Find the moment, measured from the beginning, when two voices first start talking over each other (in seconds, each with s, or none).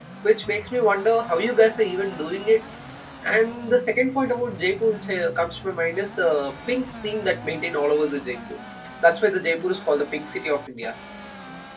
none